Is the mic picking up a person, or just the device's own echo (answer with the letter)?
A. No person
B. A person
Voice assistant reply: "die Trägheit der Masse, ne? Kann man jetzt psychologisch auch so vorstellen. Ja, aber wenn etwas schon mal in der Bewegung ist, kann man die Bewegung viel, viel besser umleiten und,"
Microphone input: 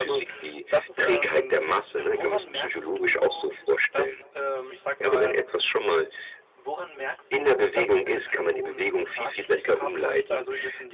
B